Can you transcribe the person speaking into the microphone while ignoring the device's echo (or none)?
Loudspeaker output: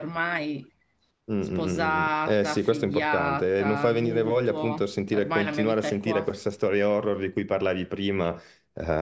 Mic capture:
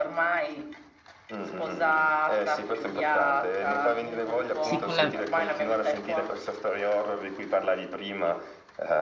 sì, con le-